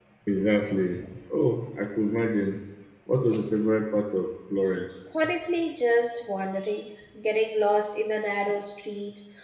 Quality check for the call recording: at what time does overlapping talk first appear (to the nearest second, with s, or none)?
none